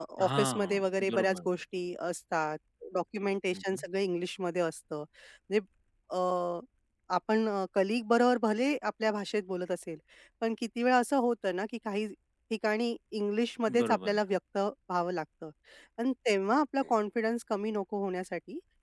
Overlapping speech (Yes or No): Yes